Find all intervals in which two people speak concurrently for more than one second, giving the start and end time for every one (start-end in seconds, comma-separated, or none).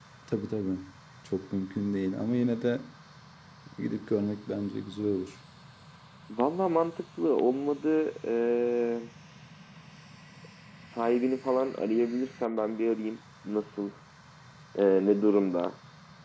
none